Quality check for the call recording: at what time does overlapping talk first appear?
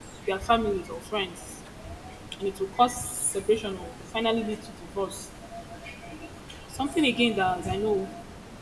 none

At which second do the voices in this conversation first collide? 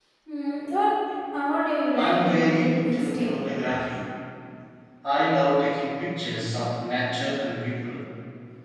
2.0 s

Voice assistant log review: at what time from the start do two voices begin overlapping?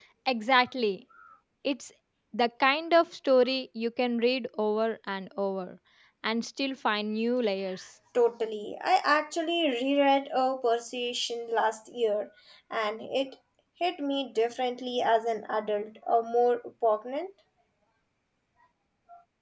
none

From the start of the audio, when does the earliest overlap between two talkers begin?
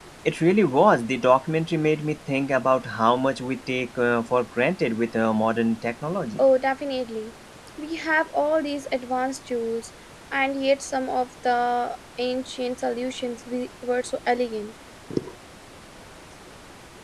none

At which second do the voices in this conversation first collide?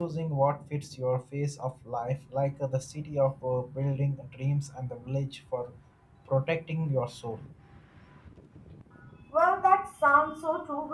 none

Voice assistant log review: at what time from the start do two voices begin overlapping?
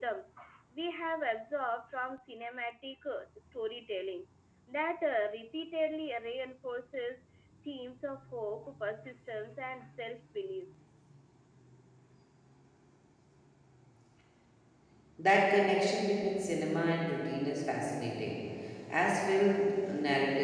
none

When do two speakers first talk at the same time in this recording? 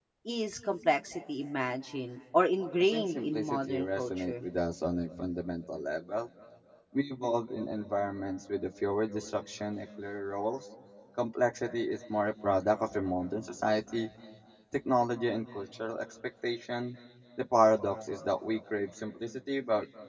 2.8 s

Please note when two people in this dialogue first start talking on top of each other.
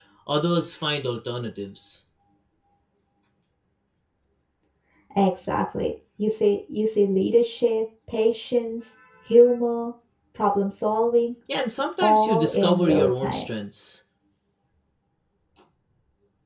12.0 s

